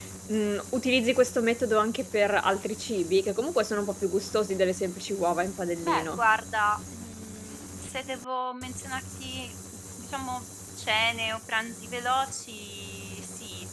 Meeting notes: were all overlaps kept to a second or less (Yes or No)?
Yes